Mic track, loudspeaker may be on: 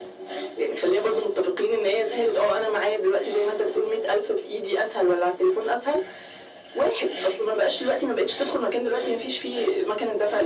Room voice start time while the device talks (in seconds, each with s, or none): none